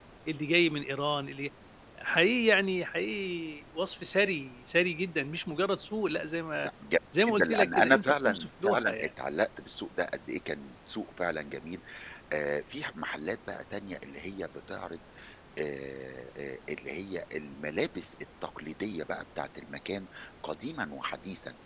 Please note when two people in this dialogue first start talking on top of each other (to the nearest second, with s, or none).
7 s